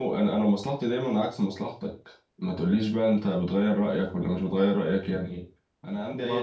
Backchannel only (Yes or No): No